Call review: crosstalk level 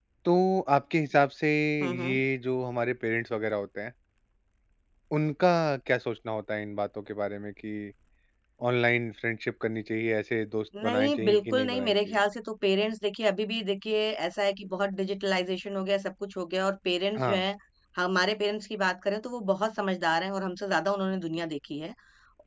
present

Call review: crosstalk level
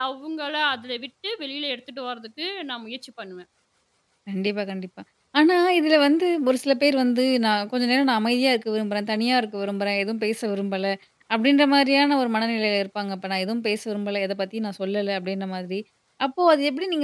none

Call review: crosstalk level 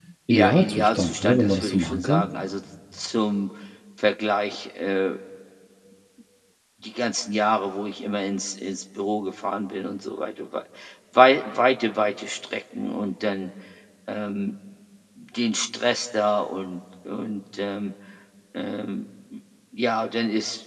present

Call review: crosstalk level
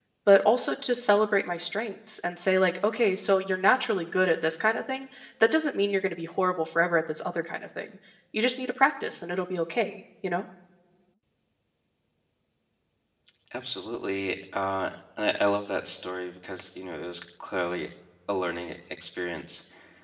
none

